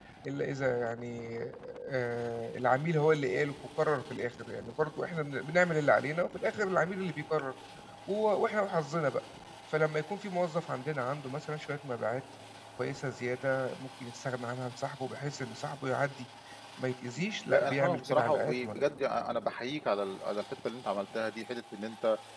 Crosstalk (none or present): present